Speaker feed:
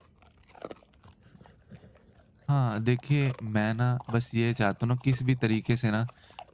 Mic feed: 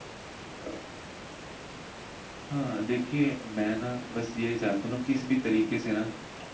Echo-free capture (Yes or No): No